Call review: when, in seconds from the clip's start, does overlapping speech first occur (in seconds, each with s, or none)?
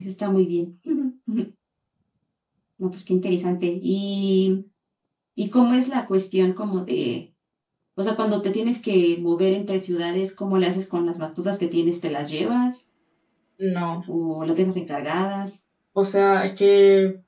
none